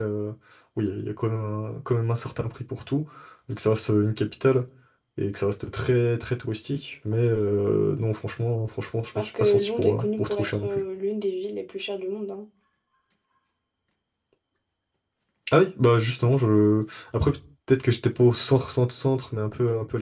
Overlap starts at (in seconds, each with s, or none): 9.2 s